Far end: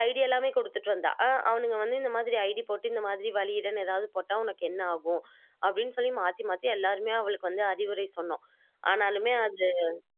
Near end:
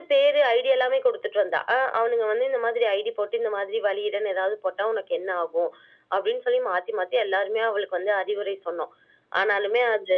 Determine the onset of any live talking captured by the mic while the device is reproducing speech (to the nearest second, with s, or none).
none